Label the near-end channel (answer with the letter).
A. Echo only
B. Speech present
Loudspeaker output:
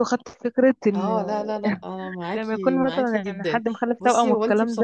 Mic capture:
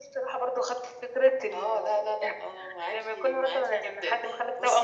A